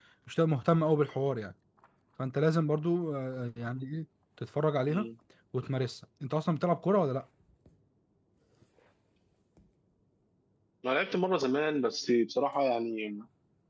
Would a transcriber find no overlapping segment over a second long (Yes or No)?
Yes